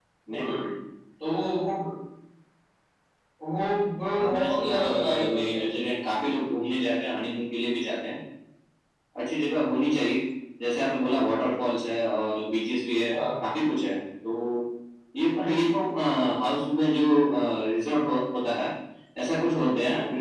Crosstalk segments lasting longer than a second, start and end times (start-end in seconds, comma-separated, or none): 4.2-5.7